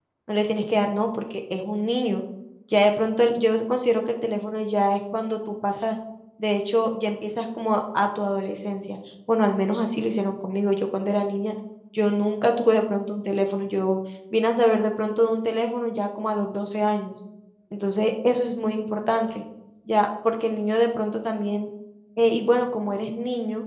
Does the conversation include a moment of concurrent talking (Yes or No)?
No